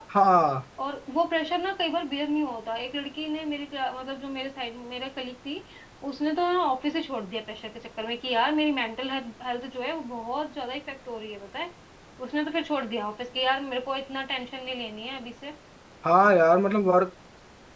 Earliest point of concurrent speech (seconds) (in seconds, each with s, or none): none